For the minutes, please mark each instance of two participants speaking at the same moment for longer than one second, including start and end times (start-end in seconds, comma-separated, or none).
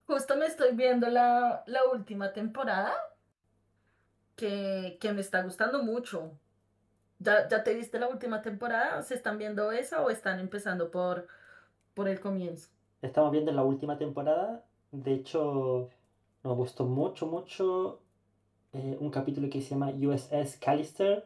none